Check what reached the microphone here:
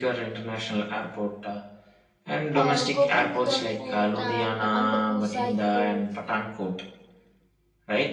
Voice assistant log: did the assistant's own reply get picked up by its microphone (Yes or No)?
Yes